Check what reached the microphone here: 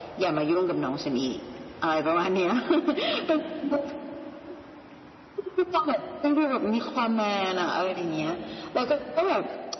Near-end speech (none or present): none